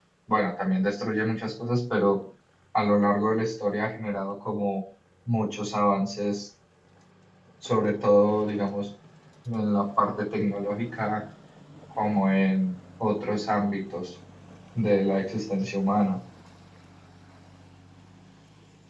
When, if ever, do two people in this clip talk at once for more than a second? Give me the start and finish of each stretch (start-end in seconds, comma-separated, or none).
none